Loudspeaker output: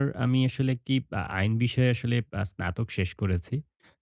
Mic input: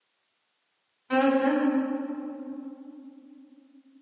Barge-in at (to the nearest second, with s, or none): 1 s